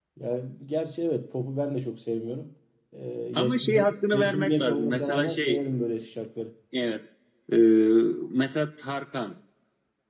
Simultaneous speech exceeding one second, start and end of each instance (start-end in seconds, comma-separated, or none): 3.4-5.6